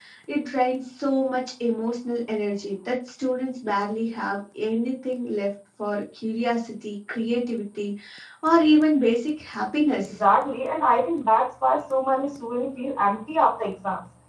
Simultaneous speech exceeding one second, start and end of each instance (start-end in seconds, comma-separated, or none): none